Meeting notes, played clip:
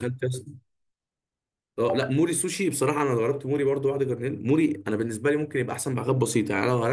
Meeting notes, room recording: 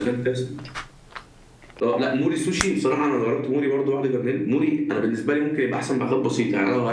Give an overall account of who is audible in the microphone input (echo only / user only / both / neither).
echo only